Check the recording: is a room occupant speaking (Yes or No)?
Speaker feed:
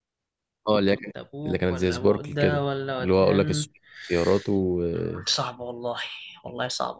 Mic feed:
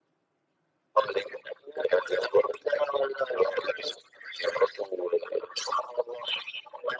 No